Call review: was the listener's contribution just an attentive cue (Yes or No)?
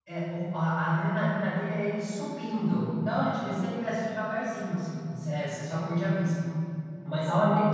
Yes